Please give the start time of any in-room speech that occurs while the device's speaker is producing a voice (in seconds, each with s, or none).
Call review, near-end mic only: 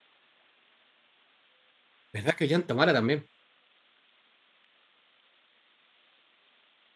2.1 s